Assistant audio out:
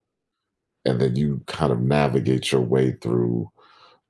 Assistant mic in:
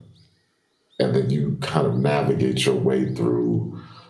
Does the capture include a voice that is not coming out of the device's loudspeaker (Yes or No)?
No